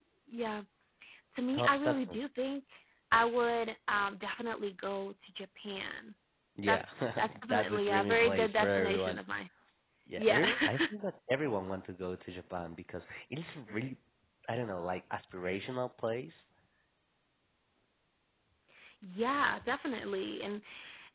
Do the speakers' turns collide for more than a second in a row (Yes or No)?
Yes